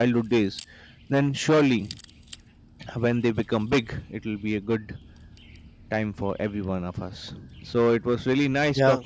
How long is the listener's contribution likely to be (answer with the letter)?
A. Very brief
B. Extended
A